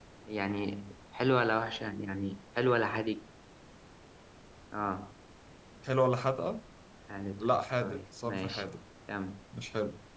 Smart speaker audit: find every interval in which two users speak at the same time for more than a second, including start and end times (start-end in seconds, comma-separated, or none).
7.4-8.6